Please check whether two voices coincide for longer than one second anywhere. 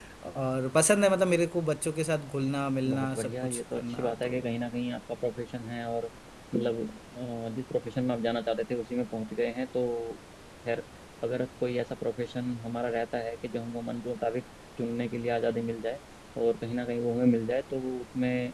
Yes, from 2.9 s

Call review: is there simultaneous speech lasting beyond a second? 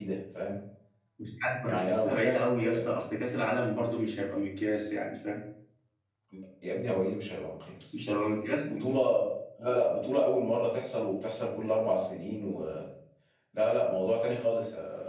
Yes, from 1.6 s

